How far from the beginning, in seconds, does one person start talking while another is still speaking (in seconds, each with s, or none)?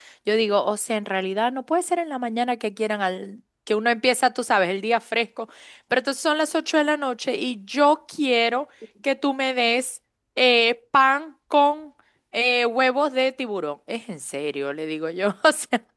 none